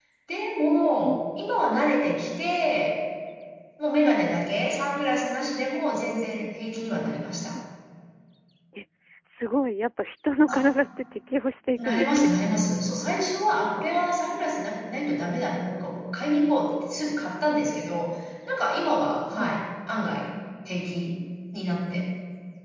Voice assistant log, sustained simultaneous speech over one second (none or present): none